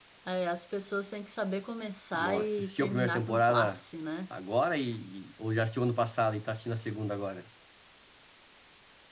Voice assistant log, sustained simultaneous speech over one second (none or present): present